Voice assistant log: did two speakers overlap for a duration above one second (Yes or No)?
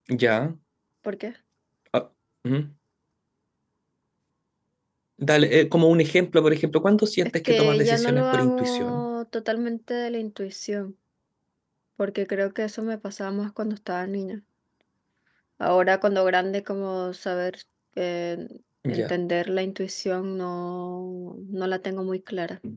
Yes